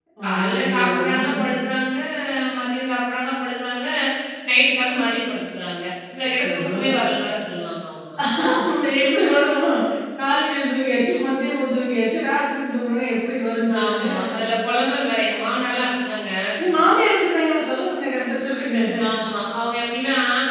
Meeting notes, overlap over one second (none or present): present